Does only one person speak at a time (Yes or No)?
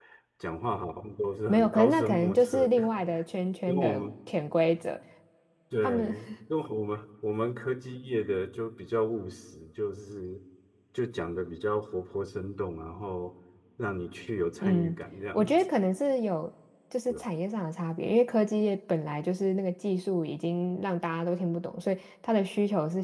No